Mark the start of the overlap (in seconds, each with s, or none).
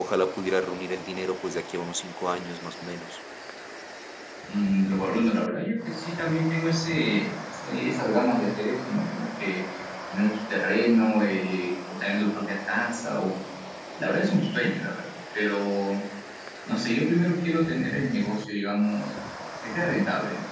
none